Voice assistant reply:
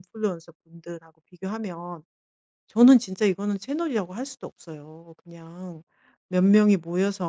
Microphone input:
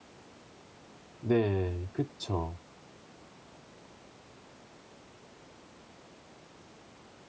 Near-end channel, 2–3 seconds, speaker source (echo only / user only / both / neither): user only